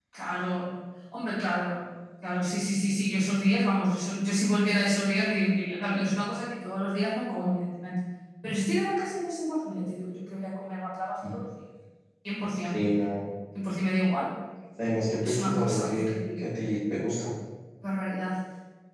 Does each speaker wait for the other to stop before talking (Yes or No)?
No